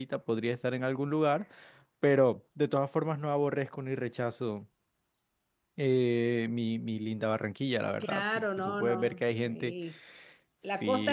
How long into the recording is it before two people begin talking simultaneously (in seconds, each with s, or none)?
8.0 s